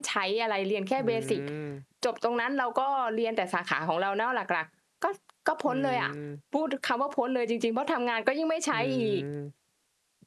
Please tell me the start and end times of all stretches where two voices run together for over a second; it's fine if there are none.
none

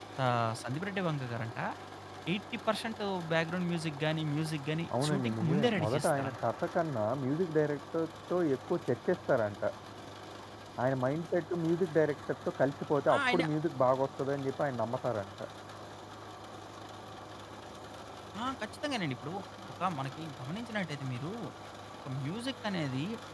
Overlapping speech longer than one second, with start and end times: 5.0-6.3

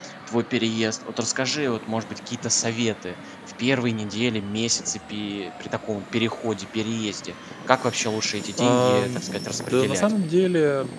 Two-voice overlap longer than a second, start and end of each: 8.6-10.1

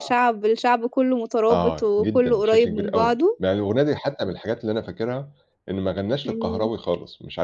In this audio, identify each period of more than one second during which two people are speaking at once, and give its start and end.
1.5-3.1

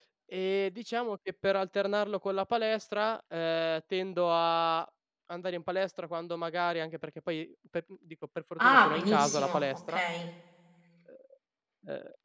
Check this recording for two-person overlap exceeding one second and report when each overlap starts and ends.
8.6-10.0

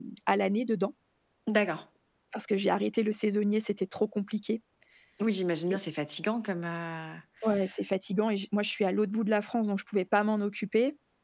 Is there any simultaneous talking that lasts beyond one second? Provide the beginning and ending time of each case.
none

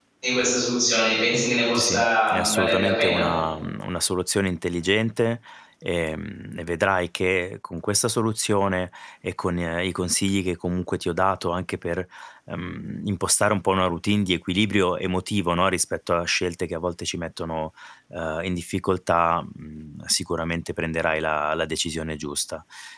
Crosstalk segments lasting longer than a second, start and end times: 1.8-3.3

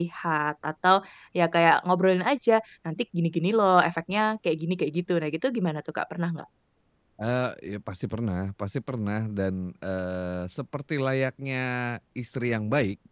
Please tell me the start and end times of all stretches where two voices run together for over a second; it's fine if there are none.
none

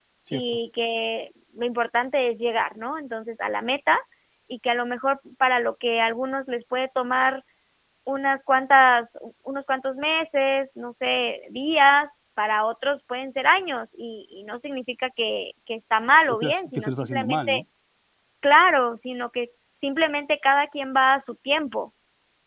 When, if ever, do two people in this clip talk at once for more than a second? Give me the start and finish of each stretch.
16.3-17.5

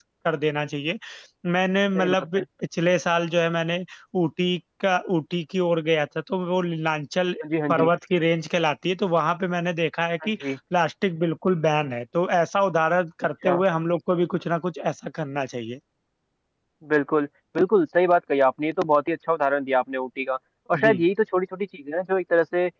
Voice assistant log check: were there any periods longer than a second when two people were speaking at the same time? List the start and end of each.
none

